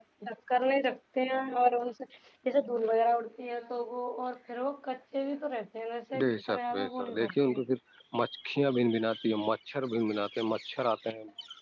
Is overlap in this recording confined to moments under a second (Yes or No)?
No